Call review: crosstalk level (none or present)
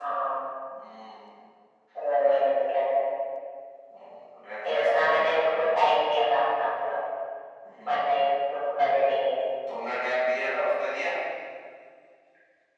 present